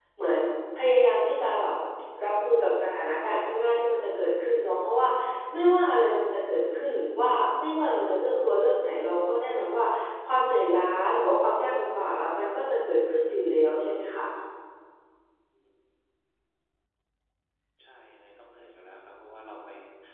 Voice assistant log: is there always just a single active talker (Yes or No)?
Yes